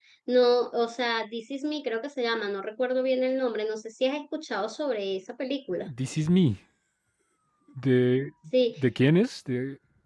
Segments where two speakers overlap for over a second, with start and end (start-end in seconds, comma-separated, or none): none